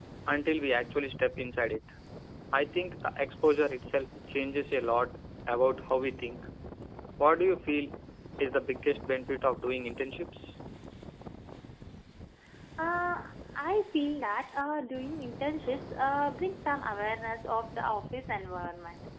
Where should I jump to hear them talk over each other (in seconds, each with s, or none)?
none